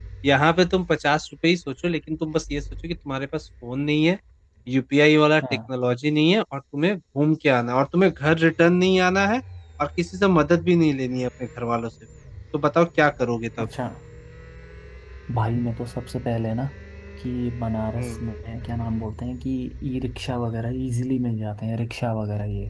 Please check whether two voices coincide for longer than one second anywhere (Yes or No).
No